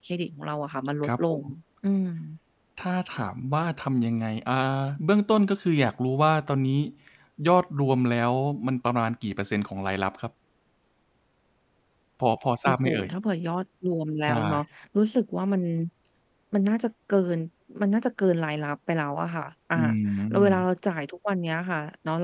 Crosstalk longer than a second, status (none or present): none